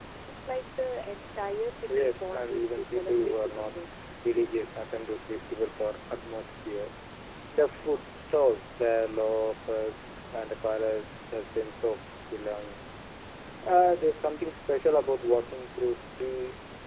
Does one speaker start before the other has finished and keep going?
Yes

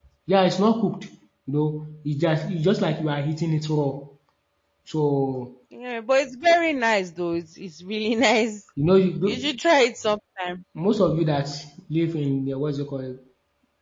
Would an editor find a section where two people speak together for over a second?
No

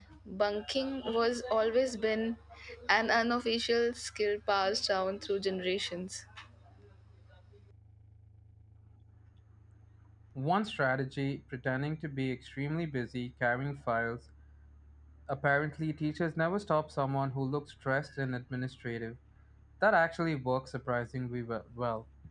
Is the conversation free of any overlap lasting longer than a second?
Yes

